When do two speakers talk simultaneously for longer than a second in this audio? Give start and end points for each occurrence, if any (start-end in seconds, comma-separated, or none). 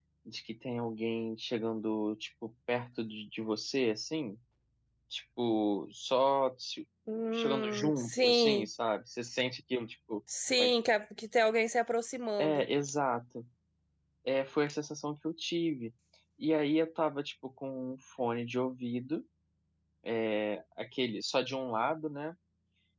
7.3-8.7